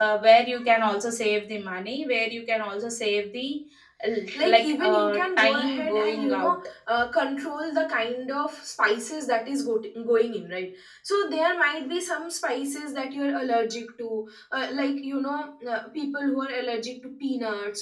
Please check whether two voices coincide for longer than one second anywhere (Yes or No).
Yes